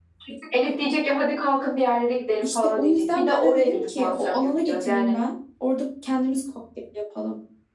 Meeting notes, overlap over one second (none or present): present